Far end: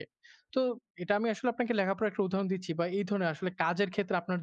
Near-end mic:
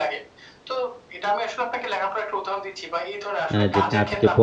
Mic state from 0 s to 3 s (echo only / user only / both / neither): echo only